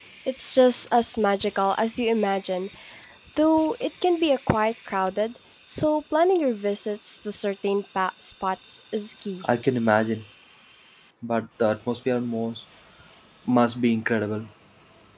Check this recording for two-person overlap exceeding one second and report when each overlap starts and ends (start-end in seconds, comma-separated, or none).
none